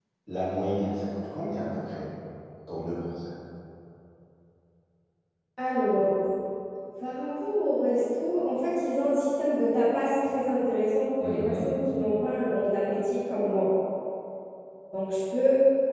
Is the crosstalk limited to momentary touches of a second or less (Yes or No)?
Yes